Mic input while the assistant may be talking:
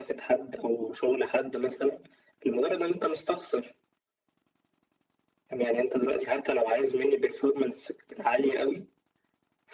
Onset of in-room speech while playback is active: none

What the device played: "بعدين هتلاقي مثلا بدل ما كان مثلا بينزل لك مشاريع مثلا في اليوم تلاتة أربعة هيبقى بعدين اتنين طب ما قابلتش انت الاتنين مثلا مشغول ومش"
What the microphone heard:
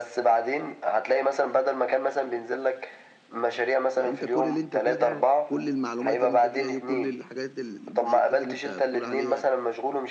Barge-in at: 4.0 s

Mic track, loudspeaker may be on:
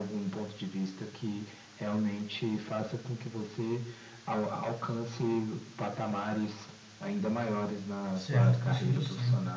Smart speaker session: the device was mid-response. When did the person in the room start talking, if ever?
8.1 s

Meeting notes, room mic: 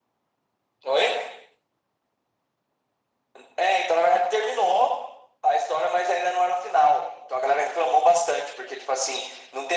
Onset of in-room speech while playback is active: none

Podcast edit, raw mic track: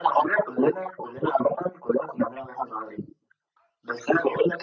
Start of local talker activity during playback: none

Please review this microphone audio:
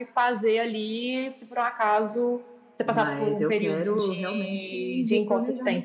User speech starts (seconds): 2.8 s

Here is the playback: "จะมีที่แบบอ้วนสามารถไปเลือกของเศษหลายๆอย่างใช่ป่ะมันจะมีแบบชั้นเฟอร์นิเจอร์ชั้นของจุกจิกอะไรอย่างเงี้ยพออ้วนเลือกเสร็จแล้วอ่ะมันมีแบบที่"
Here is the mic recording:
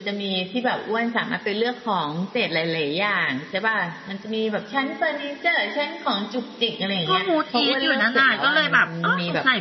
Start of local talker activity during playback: 7.1 s

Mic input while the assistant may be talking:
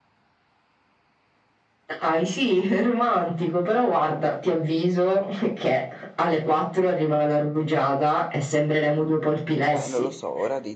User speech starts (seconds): 9.7 s

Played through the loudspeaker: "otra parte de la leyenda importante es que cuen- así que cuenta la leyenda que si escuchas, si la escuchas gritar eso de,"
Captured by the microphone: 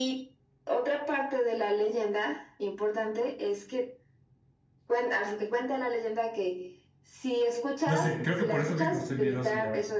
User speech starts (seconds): 7.8 s

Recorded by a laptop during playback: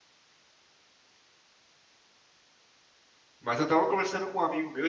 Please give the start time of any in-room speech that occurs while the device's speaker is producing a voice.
3.4 s

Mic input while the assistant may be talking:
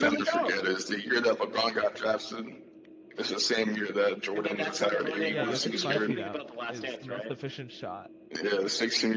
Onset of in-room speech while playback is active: 5.3 s

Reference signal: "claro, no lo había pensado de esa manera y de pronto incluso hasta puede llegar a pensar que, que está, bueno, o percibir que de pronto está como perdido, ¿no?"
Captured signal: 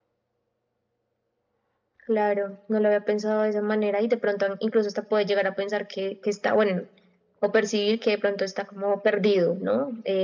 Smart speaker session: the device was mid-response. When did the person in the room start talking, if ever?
none

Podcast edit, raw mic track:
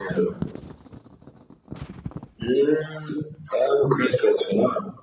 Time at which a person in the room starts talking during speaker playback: none

